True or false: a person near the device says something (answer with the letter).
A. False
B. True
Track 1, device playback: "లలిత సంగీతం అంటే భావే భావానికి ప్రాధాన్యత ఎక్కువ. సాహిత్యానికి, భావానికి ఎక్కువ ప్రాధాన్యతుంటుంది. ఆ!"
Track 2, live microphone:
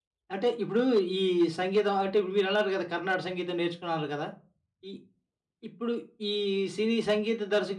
B